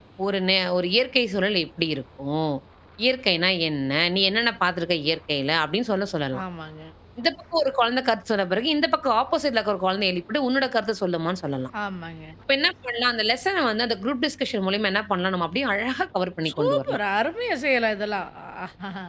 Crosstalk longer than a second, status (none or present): none